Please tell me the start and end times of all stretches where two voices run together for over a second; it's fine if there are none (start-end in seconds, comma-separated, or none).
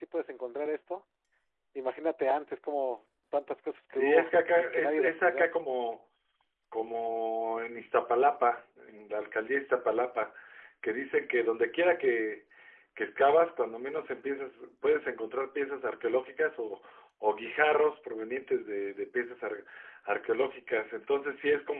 4.0-5.5